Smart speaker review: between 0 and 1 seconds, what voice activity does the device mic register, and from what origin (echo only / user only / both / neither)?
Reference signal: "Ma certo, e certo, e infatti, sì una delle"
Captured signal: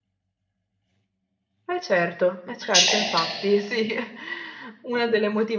neither